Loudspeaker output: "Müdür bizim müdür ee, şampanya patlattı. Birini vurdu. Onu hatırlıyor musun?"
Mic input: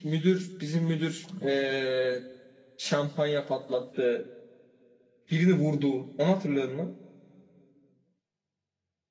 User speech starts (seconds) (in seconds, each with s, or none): none